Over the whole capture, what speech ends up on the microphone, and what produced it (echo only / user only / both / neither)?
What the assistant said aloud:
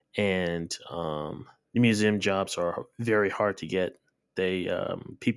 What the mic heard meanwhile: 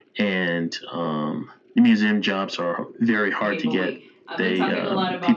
both